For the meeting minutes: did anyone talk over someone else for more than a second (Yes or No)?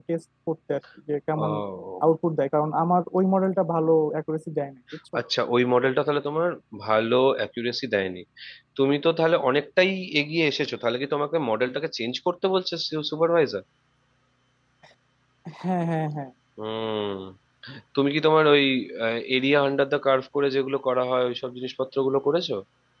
No